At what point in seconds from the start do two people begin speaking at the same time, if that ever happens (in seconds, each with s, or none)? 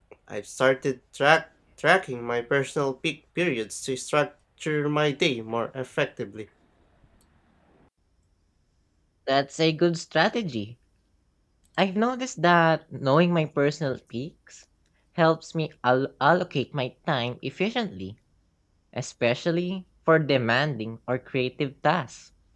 none